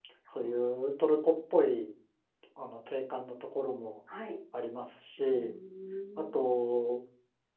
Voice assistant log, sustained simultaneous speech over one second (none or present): none